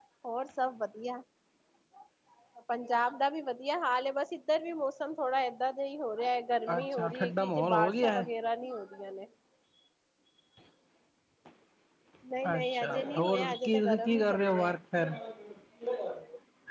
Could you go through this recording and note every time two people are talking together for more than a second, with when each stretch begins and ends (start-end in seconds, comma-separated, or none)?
6.8-8.2, 12.6-14.8